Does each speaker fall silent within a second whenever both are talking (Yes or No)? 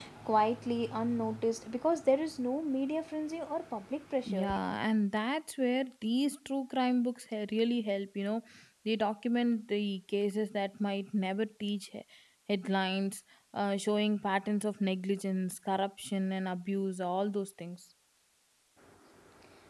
Yes